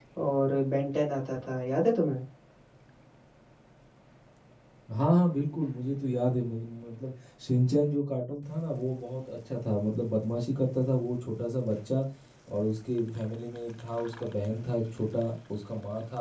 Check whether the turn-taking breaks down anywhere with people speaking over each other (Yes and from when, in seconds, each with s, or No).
No